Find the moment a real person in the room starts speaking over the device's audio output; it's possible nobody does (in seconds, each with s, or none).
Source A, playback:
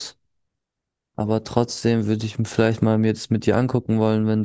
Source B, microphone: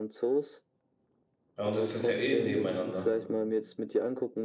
1.6 s